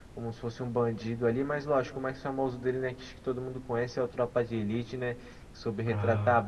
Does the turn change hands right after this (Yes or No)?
No